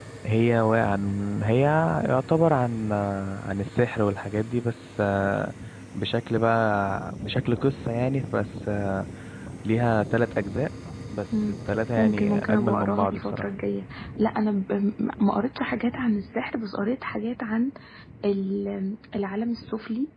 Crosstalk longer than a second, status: present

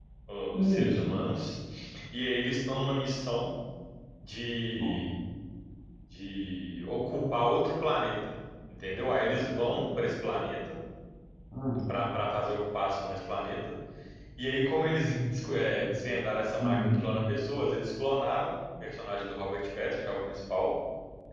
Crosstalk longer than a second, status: none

